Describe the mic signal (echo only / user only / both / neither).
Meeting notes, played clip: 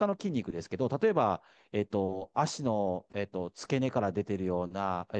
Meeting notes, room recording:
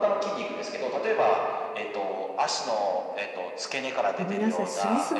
both